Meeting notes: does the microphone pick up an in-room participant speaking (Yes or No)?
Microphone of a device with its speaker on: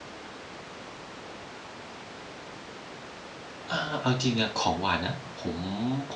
Yes